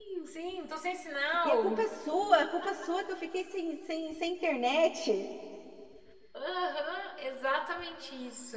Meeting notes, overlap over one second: none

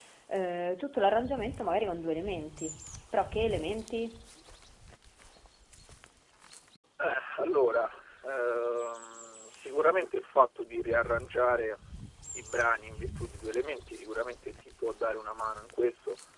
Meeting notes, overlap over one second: none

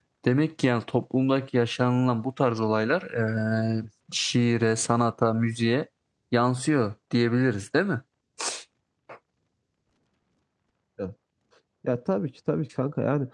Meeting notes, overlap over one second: none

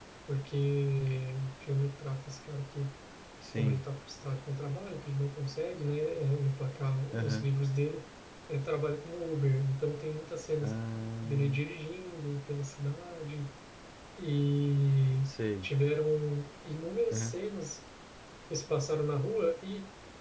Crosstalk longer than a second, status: none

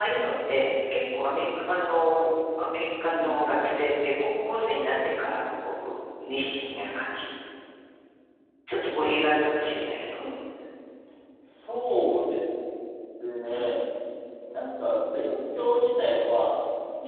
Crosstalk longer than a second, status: none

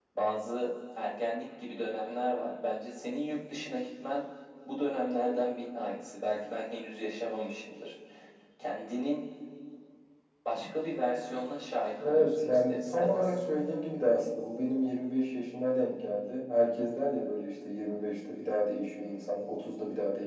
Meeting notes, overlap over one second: present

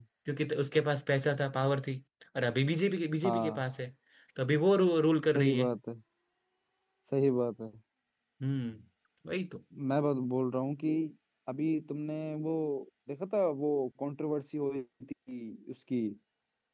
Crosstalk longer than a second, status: none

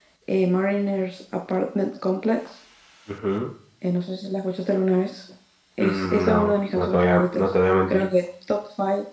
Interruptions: present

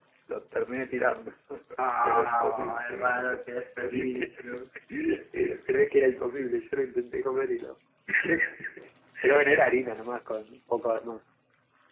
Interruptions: present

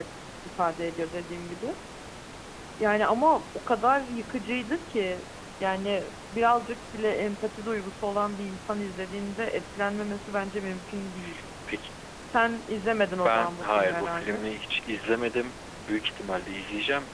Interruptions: present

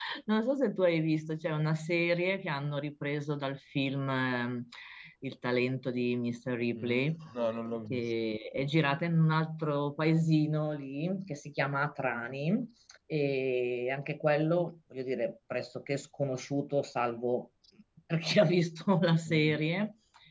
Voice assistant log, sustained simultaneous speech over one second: none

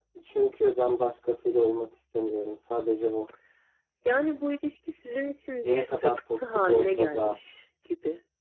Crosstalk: present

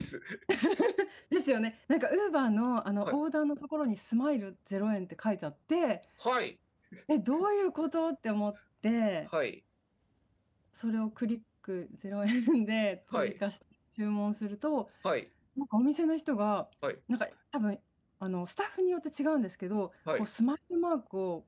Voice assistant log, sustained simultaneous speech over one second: none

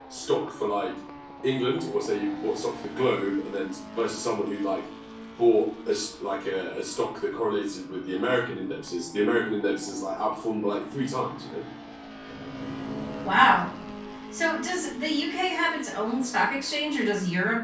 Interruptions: none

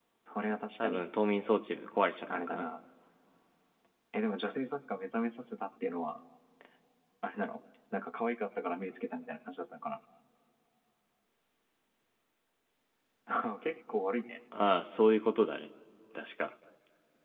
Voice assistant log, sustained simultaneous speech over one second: none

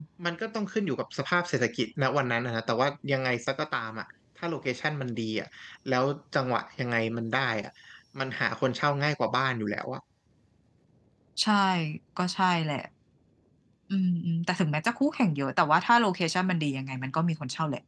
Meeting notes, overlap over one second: none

